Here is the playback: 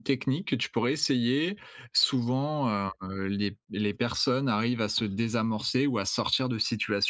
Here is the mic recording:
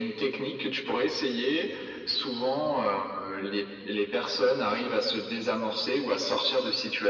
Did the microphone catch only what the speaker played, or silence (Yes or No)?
Yes